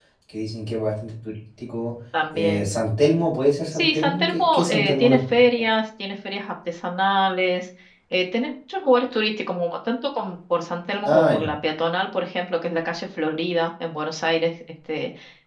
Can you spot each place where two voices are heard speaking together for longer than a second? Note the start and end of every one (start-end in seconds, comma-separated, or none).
3.7-5.2